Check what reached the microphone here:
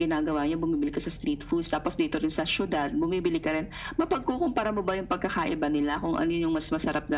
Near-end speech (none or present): none